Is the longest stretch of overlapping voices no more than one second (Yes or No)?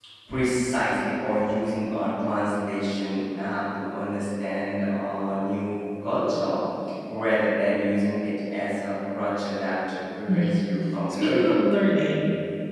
Yes